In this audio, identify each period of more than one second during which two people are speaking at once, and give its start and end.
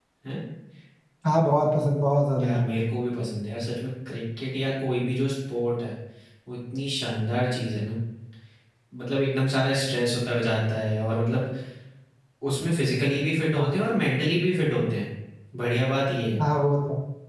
none

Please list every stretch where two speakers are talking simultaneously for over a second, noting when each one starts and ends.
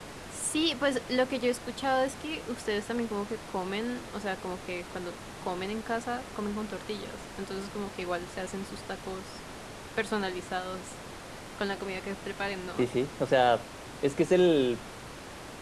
none

